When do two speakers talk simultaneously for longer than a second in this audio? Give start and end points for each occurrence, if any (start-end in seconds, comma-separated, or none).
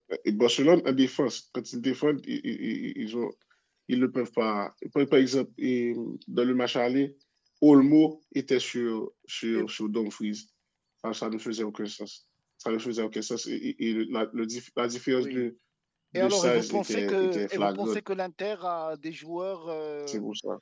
16.1-18.0